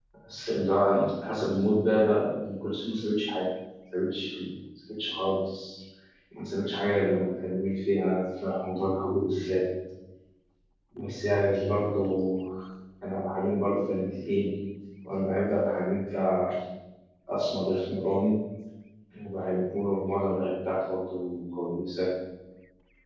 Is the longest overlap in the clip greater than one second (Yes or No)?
No